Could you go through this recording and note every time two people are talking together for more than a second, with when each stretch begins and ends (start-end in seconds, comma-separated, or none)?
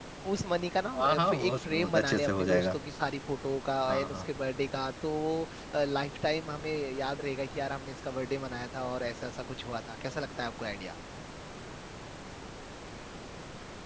1.0-2.7